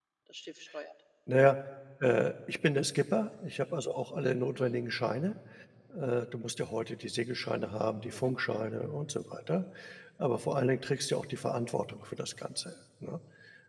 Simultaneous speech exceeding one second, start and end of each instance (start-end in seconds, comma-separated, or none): none